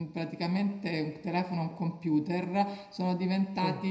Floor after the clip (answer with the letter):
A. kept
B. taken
A